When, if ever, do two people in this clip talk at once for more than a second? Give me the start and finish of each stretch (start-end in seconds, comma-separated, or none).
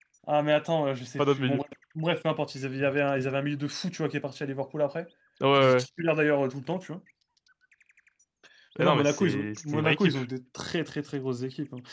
8.8-10.2